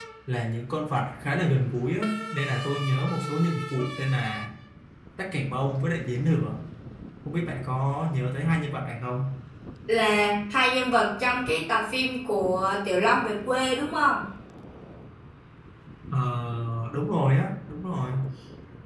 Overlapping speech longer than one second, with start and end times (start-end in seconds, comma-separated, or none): none